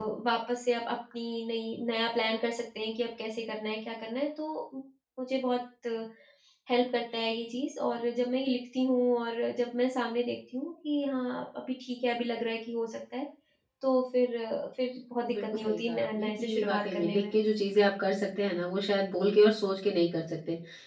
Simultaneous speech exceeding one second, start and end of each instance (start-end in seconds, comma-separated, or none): 15.3-17.3